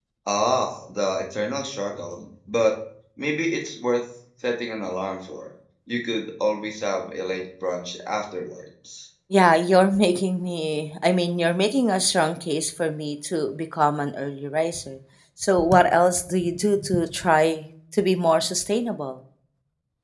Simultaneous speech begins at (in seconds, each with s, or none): none